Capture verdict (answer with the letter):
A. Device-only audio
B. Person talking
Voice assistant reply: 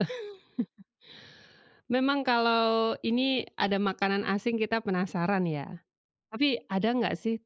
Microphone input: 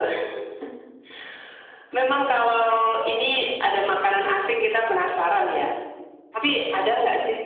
A